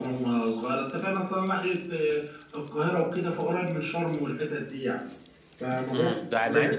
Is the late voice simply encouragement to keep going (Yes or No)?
No